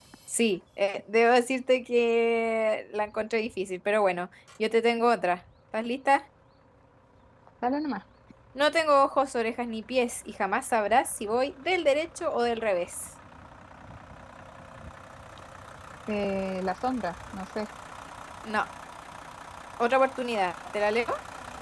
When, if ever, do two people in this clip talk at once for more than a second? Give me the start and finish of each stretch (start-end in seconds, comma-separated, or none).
none